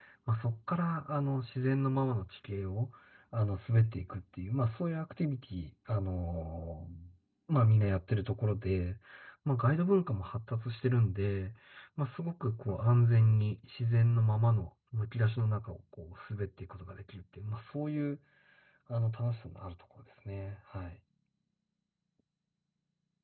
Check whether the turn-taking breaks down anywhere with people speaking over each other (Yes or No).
No